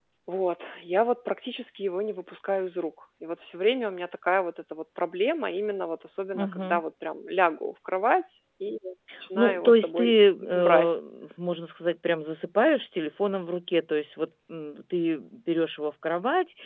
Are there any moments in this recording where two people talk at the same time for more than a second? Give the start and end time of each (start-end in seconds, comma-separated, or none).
9.3-10.9